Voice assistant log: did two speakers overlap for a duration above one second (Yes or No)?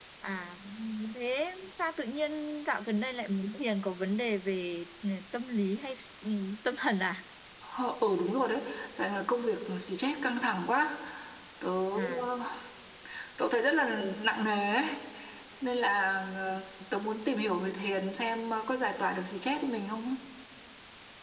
No